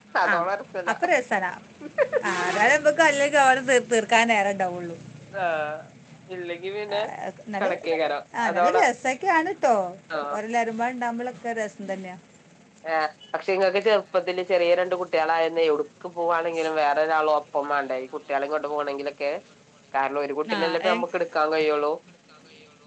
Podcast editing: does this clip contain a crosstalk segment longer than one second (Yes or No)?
No